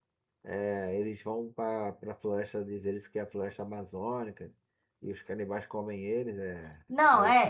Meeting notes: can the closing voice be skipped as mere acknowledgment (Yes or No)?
No